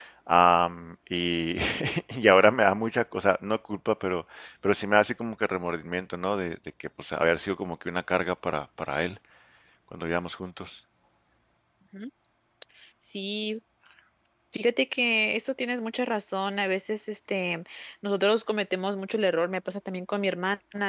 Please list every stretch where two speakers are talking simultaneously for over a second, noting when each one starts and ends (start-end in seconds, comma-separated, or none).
none